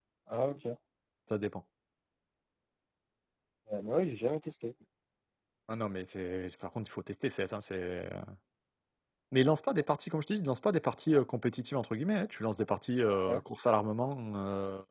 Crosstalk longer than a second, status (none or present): none